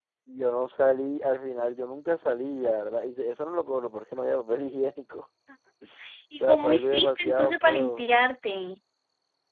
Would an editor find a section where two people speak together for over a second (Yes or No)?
Yes